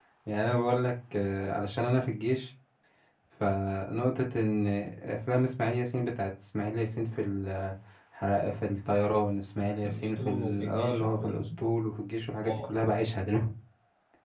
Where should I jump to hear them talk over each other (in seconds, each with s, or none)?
9.8 s